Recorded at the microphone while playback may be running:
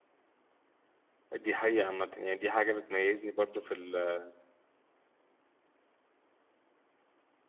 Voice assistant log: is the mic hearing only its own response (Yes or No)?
No